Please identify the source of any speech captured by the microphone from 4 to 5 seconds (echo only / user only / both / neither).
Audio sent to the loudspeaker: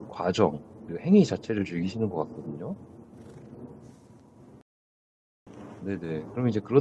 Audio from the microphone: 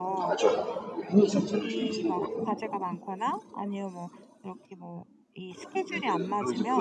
user only